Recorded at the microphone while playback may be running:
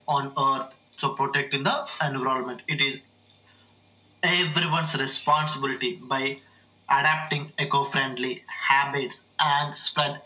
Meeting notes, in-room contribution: none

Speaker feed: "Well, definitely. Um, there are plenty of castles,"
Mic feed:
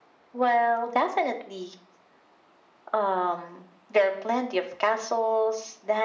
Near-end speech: none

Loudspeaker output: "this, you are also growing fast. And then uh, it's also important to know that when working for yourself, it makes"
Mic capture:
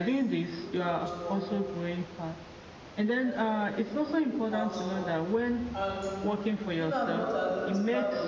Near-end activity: present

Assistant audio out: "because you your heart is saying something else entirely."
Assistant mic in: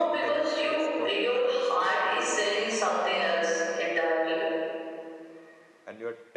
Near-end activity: present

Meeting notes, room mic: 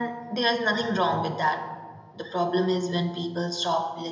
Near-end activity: none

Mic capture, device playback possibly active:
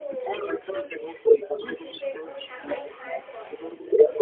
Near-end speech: present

